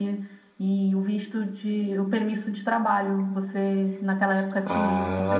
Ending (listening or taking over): taking over